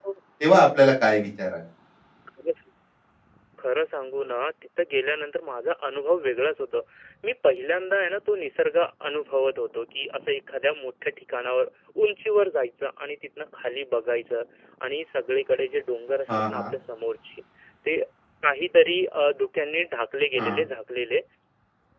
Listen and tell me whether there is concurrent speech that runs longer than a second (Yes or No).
No